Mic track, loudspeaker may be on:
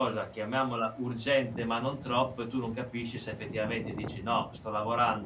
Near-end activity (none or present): present